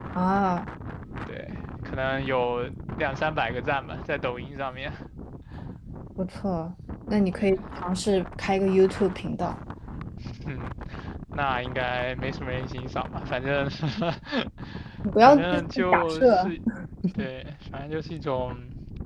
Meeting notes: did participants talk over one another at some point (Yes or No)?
Yes